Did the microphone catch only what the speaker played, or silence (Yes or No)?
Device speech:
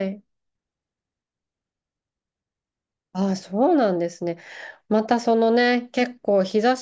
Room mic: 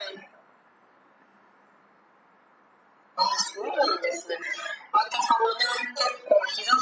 Yes